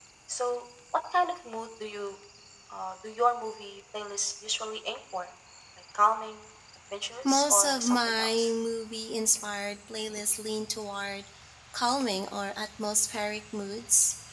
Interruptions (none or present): present